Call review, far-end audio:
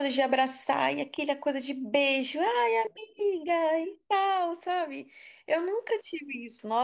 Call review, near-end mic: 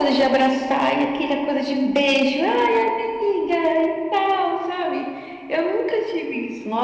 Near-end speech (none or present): none